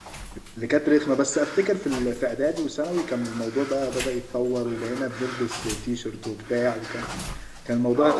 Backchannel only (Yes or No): No